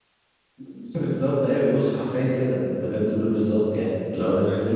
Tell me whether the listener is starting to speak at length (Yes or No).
No